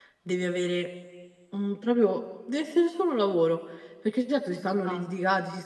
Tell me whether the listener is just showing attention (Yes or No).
Yes